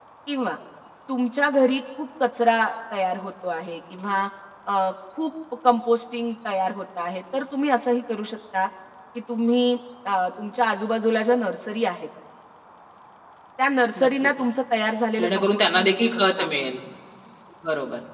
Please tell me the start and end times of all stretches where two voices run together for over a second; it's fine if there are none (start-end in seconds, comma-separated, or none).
15.2-16.5